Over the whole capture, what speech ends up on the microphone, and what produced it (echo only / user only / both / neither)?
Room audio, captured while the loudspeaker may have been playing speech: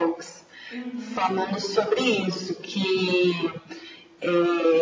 both